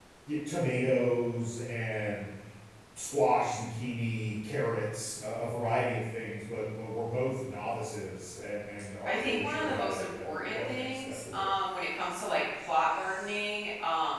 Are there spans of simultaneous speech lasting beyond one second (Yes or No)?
Yes